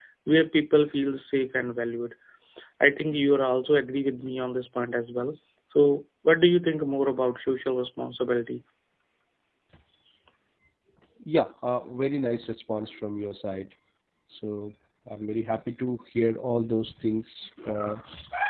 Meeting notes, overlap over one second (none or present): none